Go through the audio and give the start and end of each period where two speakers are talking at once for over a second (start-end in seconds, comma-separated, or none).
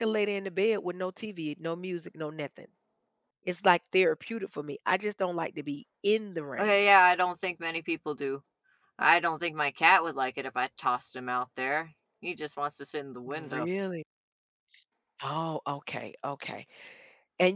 none